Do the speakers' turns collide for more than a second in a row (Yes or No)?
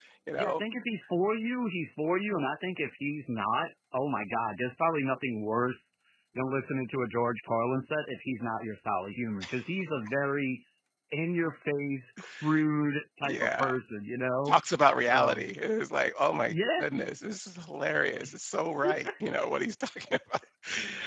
No